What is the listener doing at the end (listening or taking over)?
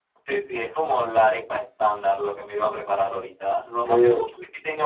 listening